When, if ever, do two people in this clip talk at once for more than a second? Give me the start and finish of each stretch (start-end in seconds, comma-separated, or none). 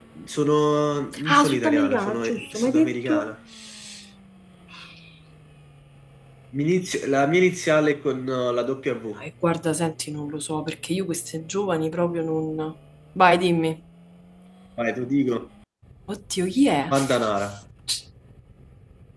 1.3-3.3